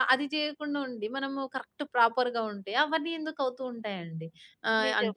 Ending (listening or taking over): listening